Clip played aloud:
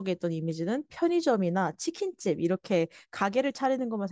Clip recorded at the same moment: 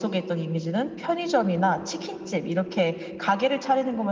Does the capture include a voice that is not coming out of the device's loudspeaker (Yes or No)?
No